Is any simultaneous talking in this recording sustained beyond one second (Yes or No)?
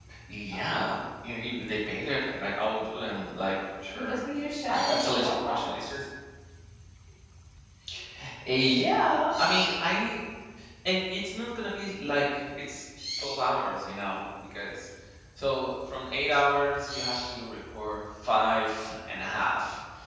Yes